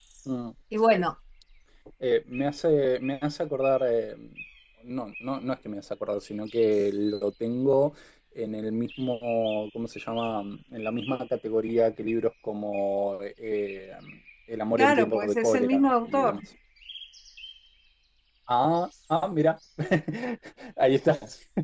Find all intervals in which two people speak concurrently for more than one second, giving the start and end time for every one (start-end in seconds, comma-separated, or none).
14.8-16.4